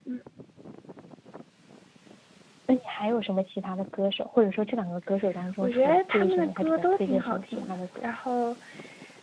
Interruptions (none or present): present